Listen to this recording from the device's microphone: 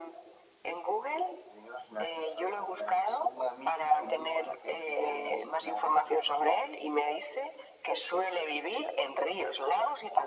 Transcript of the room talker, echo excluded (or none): none